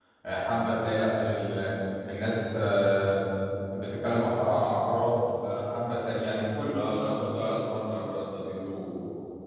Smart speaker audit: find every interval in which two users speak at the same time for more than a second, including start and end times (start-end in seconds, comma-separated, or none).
none